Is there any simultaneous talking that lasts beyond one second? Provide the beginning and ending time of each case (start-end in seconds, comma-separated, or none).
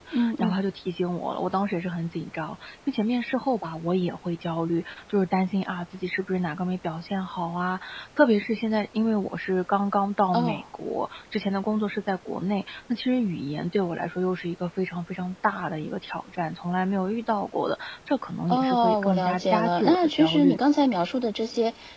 18.5-20.6